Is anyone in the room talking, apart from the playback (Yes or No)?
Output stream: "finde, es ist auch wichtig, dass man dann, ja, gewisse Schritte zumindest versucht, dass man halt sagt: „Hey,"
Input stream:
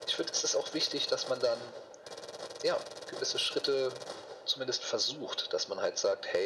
No